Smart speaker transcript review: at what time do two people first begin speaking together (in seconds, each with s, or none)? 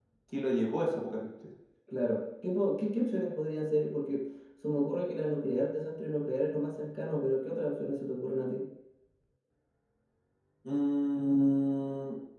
none